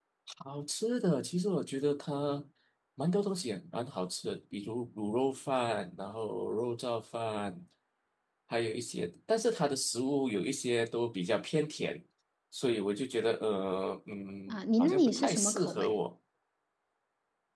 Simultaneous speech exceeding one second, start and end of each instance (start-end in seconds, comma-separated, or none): 14.5-15.9